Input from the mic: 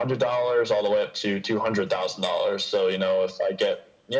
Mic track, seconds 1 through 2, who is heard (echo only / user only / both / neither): echo only